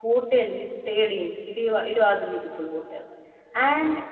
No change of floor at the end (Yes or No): Yes